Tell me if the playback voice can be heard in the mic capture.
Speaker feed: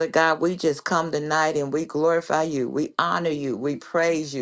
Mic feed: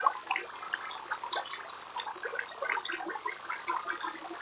No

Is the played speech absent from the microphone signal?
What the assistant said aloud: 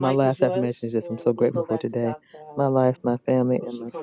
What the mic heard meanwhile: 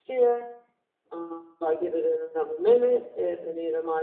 Yes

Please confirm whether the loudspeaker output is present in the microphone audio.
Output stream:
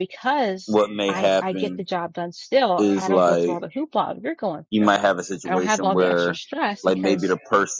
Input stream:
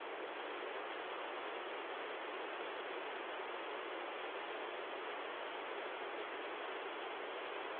No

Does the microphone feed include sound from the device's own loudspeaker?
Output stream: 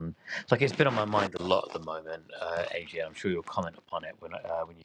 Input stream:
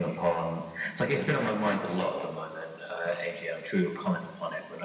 Yes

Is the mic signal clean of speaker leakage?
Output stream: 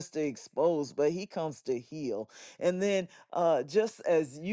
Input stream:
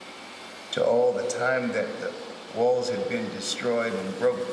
Yes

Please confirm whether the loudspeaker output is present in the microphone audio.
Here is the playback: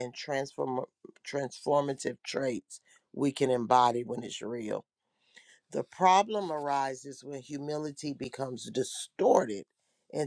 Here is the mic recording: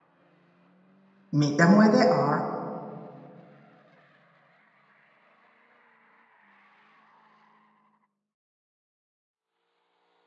No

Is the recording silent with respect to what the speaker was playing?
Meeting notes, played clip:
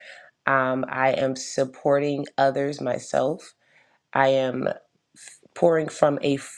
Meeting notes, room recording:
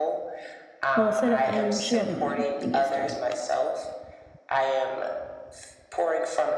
No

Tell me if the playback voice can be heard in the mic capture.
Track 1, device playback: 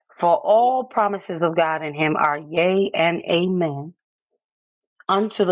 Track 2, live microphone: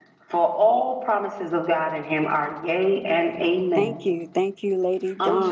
Yes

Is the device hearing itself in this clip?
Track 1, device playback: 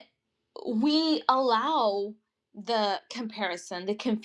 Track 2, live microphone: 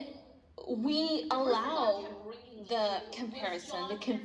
Yes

